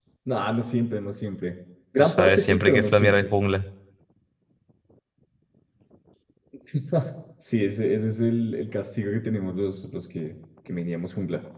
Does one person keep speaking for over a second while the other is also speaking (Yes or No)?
Yes